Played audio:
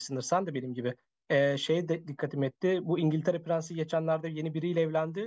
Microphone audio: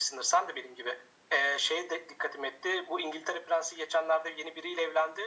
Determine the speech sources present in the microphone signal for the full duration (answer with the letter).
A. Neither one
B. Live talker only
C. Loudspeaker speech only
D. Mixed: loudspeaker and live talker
C